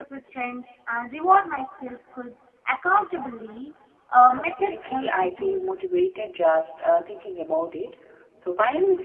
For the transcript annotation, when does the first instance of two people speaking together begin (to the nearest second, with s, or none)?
4 s